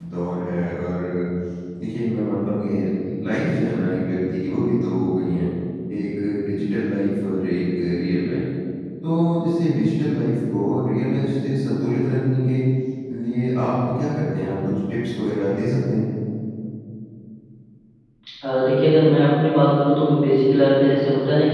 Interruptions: none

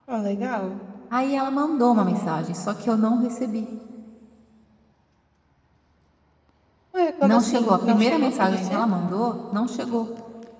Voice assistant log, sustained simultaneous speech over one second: present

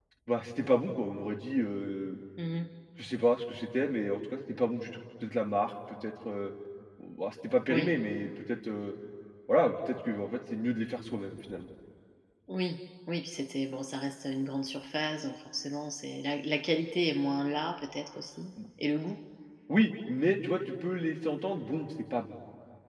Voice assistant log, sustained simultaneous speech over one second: none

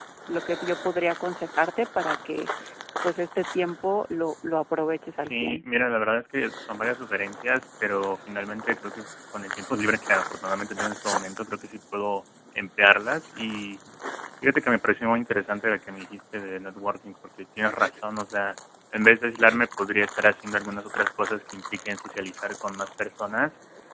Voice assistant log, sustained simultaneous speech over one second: none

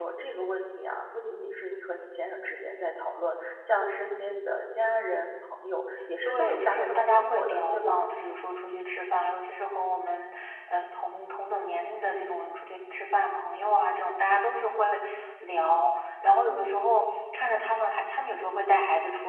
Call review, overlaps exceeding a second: present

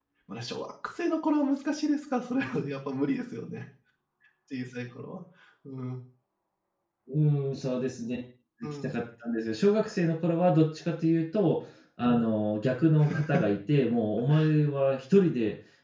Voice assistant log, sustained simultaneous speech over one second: none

